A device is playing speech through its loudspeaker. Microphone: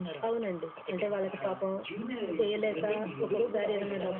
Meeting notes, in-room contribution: present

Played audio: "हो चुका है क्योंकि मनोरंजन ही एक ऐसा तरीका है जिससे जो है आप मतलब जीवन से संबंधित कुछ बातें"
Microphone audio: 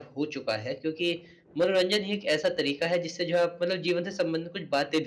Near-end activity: none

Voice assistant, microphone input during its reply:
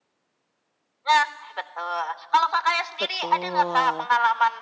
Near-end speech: present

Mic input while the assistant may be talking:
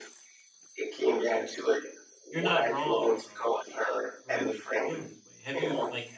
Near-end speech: present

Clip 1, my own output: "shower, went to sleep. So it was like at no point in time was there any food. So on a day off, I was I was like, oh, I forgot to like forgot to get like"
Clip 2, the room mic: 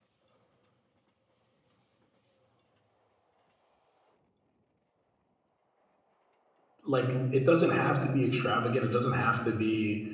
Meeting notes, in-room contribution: present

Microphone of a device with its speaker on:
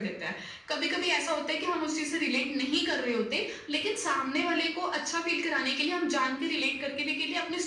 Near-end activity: none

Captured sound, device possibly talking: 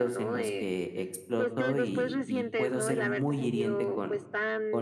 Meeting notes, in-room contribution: present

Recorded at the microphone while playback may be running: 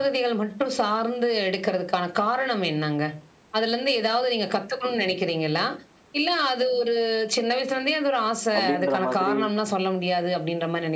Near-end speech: present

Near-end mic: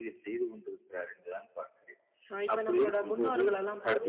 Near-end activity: present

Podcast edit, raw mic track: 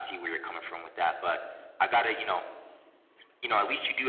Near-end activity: none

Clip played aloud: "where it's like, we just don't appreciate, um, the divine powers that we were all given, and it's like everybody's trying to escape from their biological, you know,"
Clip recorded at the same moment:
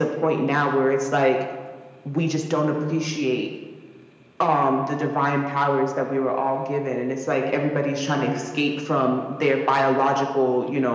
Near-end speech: none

